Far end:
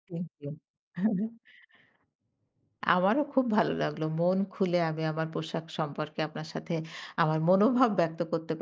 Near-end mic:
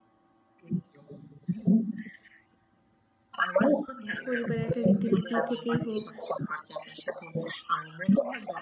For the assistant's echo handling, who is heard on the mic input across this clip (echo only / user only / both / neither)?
both